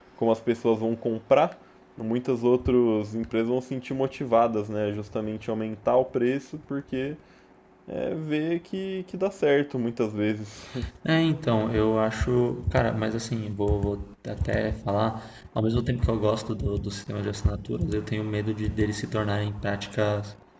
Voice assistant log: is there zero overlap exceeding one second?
Yes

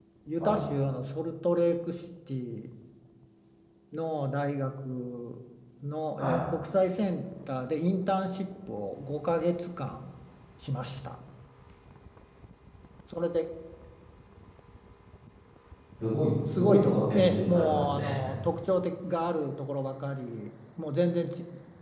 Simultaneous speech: Yes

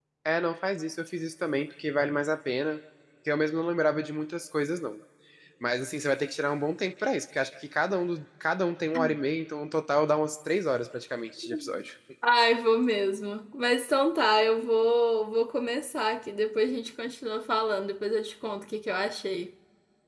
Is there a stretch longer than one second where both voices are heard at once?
No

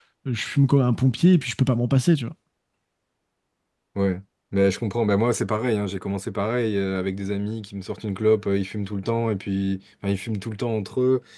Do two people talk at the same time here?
No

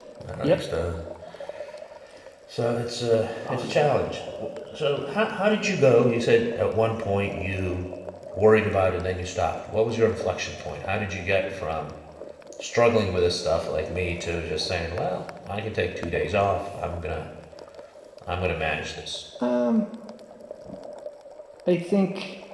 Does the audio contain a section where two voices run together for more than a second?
No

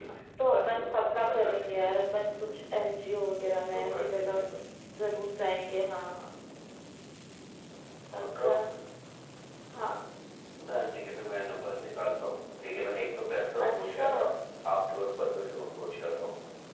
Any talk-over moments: Yes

